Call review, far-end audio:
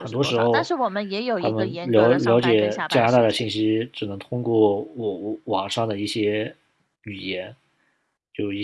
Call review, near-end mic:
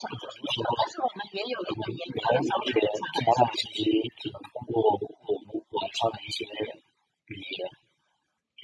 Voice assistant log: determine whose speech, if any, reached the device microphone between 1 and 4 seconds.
echo only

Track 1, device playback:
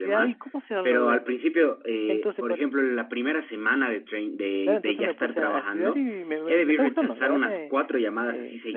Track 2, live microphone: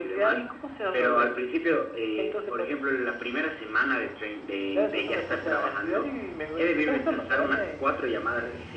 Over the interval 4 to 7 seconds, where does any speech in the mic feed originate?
echo only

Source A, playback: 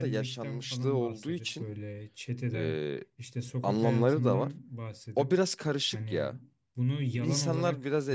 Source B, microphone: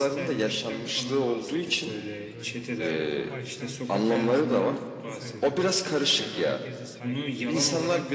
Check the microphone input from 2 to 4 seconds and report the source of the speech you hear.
both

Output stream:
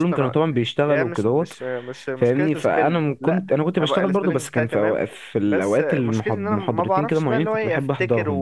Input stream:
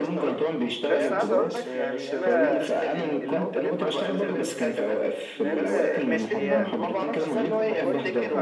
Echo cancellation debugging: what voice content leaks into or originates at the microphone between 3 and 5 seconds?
both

